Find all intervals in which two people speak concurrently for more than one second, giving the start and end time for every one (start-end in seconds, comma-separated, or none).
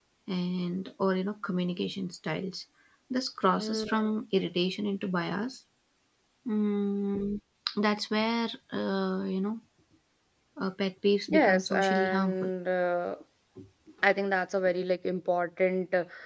11.3-12.5